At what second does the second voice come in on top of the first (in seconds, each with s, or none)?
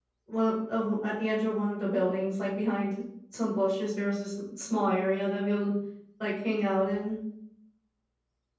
none